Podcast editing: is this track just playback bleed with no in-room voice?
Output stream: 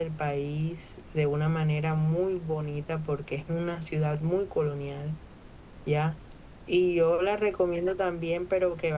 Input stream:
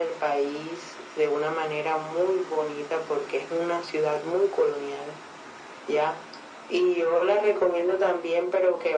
Yes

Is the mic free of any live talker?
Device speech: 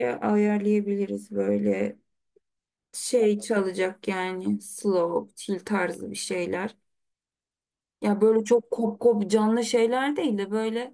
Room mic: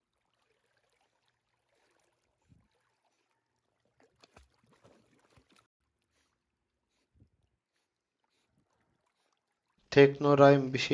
No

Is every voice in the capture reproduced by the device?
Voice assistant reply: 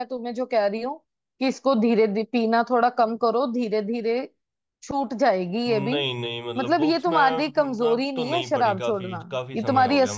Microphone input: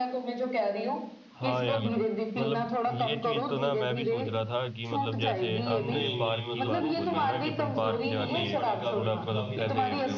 No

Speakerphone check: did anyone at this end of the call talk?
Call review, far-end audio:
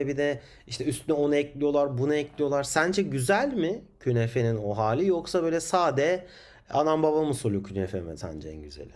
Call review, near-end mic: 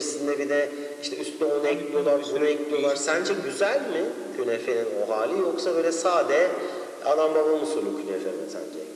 Yes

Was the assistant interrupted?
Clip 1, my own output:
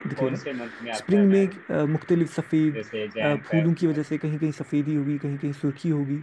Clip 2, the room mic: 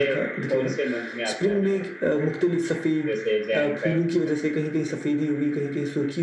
No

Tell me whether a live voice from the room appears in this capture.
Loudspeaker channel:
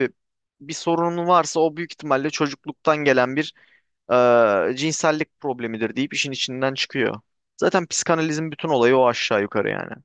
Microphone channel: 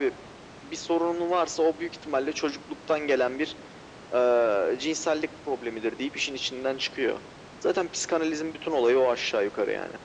No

